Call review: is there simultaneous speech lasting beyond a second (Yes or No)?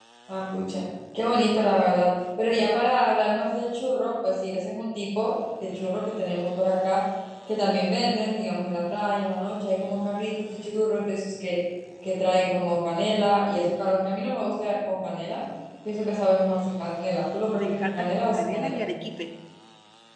Yes